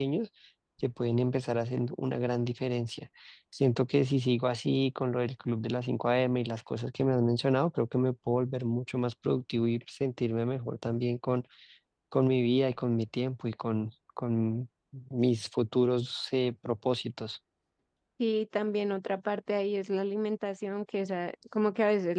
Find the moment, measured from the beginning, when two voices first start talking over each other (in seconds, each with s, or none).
none